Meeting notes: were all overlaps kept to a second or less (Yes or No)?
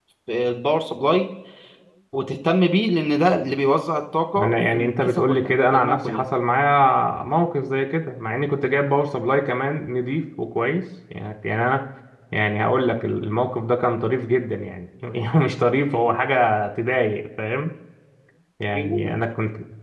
No